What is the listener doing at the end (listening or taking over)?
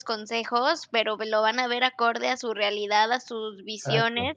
listening